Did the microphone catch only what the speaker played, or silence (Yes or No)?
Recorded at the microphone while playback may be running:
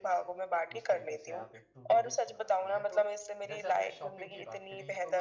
No